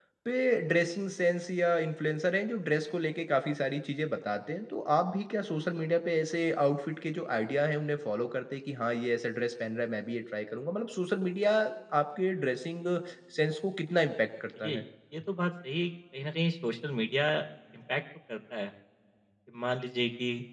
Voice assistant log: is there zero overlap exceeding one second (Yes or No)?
Yes